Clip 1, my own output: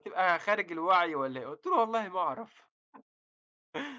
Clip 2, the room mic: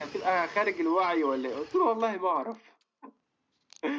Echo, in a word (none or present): present